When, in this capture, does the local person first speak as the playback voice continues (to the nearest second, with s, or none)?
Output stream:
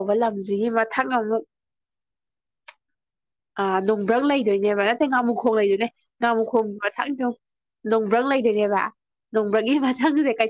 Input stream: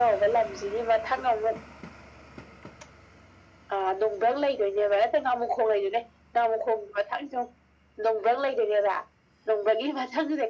none